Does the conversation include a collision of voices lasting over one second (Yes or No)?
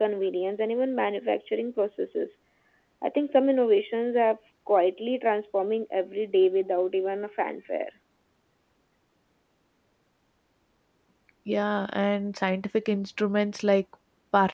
No